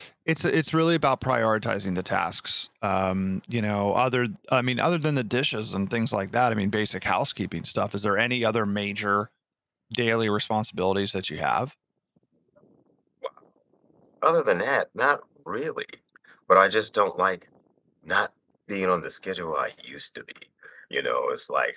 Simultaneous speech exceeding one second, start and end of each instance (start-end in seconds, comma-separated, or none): none